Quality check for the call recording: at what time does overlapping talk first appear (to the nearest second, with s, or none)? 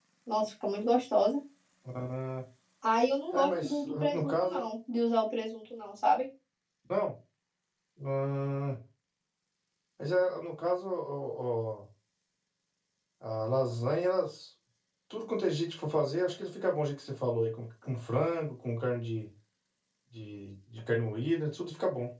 3 s